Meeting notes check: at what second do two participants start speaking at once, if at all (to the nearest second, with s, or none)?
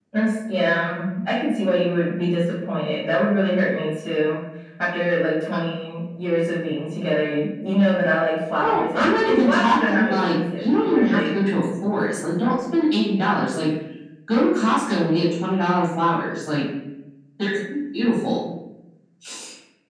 9 s